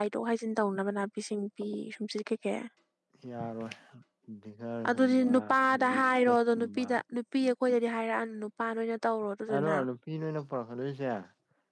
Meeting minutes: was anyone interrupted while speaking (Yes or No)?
Yes